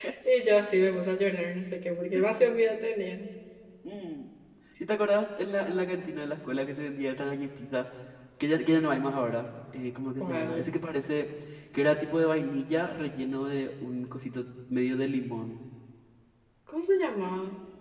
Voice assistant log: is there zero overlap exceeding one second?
Yes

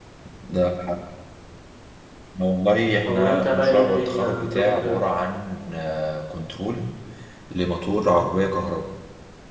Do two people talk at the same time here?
Yes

